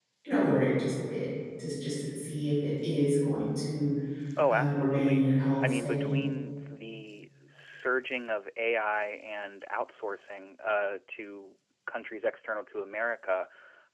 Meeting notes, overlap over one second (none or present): present